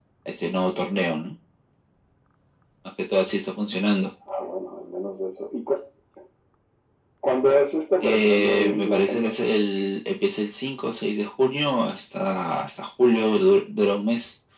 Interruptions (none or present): present